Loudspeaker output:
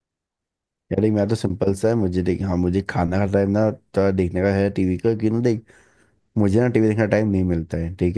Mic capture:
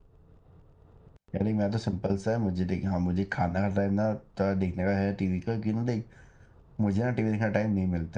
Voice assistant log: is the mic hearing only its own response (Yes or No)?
Yes